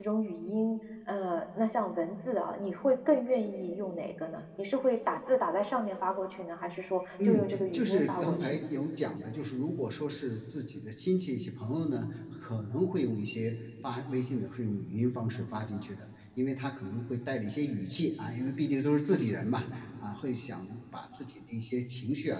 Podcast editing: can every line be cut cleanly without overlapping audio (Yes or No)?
No